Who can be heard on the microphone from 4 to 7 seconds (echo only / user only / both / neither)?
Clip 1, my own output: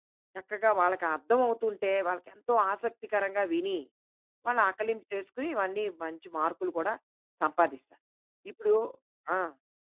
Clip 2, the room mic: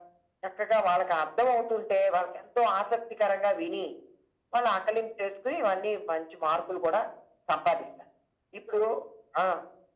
echo only